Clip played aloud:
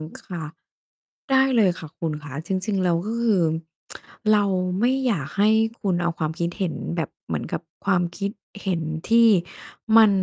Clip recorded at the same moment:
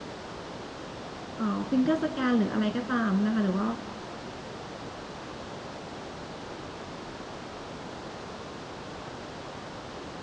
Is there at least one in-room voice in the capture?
Yes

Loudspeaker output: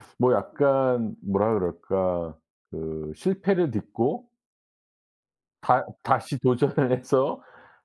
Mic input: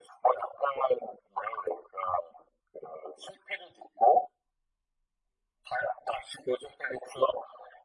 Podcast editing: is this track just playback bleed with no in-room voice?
Yes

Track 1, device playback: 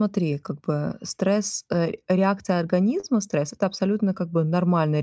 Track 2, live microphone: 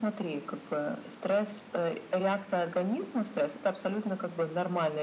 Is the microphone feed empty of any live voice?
Yes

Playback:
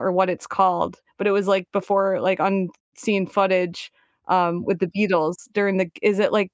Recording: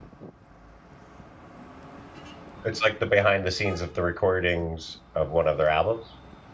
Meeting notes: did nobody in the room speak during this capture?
No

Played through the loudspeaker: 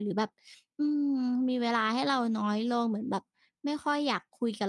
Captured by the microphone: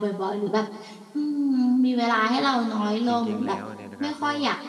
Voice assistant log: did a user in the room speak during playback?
Yes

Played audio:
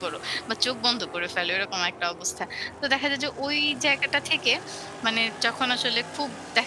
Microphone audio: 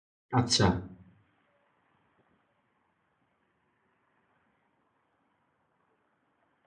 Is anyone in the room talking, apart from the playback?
Yes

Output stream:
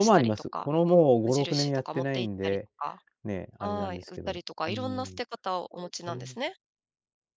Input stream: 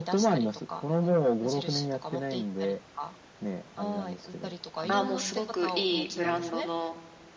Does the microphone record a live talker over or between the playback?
Yes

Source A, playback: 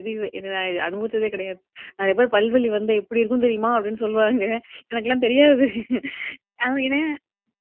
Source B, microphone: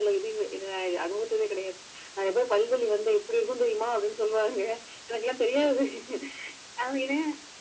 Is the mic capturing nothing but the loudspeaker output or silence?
Yes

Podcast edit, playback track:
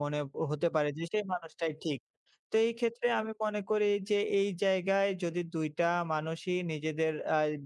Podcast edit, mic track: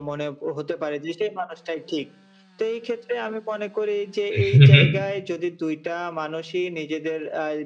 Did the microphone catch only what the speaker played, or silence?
No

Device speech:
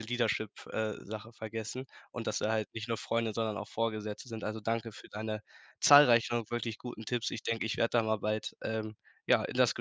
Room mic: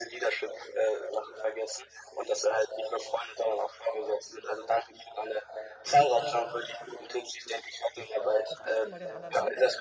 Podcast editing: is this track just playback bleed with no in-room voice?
No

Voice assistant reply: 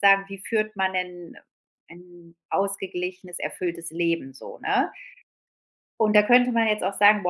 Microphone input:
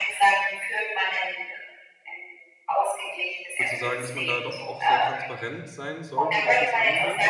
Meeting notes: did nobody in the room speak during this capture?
No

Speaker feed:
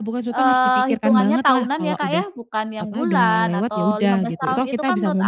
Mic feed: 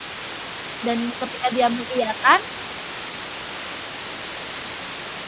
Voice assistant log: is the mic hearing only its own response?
No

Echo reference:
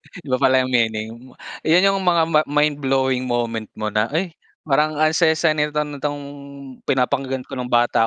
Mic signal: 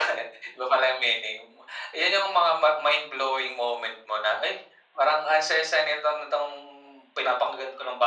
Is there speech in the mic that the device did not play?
No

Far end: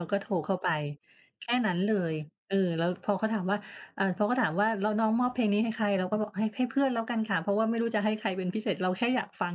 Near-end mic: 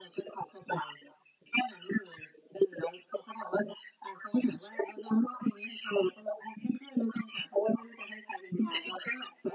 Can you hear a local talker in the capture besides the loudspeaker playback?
Yes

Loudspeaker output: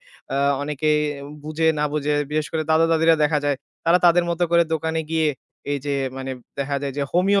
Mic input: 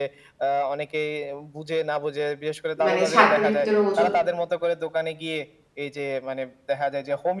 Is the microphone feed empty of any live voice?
No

